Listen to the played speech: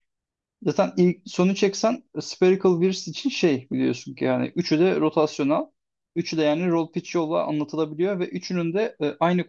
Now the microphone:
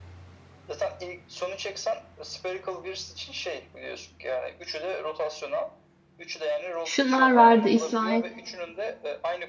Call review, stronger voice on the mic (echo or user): user